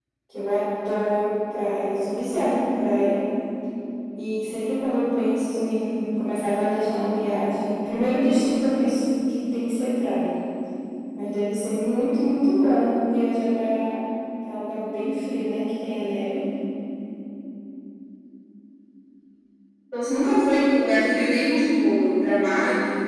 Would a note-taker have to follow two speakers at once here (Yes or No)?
No